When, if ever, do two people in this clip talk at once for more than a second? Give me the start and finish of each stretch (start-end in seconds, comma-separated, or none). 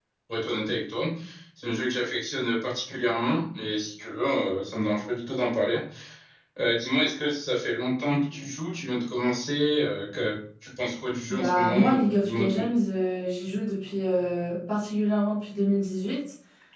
11.3-12.6